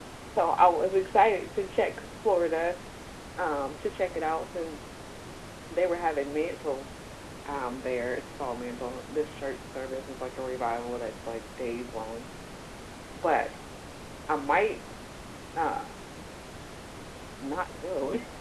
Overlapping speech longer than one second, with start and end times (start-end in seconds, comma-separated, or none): none